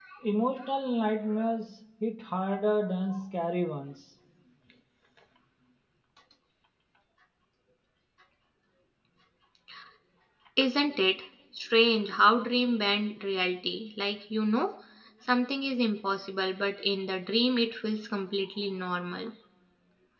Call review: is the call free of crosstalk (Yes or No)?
Yes